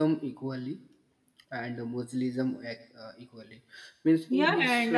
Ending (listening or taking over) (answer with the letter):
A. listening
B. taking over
B